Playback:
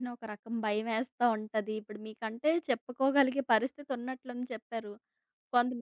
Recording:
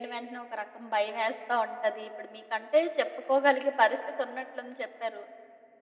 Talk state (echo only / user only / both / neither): echo only